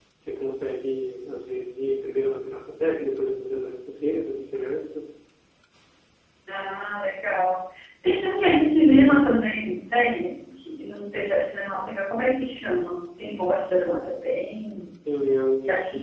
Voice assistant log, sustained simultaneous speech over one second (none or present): none